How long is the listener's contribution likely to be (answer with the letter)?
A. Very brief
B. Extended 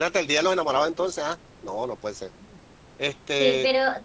B